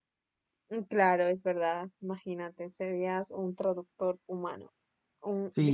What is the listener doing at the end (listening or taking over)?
taking over